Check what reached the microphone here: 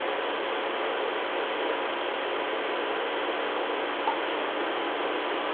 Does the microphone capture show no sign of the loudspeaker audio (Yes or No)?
Yes